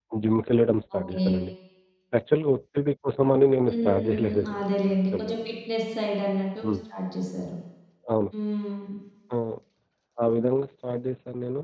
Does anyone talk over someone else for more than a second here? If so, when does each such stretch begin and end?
3.7-5.3

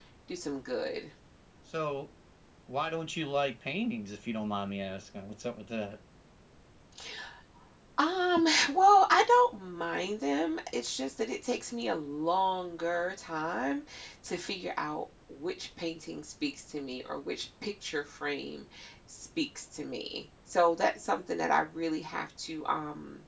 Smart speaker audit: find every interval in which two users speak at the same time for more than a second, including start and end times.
none

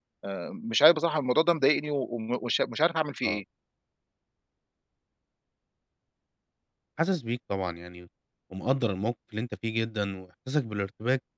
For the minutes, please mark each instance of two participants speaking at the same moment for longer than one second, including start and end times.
none

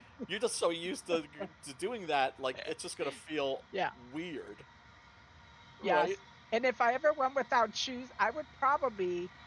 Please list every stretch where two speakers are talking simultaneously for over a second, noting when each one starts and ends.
none

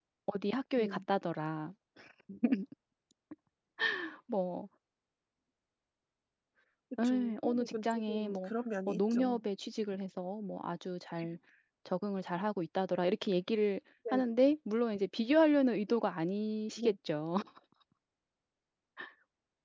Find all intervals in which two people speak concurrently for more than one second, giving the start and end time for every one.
7.0-8.5

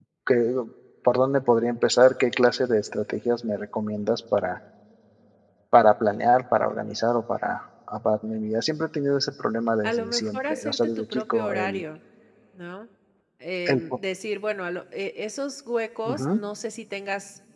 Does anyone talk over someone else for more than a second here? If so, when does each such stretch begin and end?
9.8-11.8

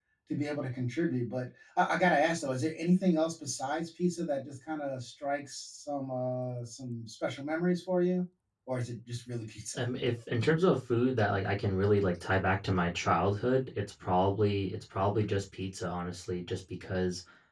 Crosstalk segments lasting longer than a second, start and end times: none

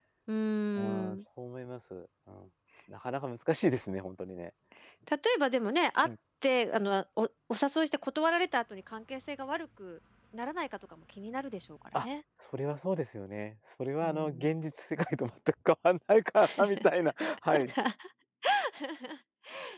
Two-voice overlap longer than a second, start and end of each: none

